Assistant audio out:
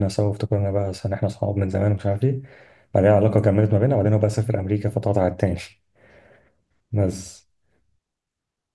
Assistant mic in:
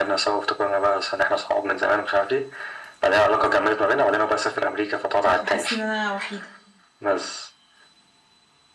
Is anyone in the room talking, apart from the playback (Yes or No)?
Yes